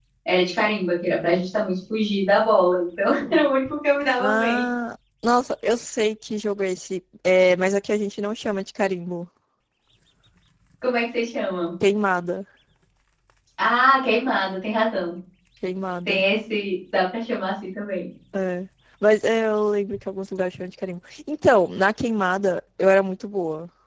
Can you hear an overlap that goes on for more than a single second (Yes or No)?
No